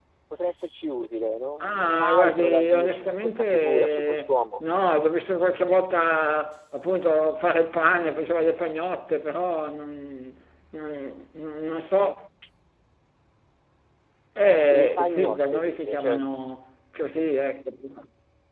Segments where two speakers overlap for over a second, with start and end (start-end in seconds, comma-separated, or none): 1.6-4.6, 14.7-16.2